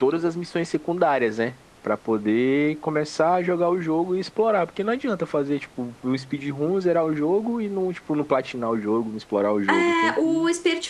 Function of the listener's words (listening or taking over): taking over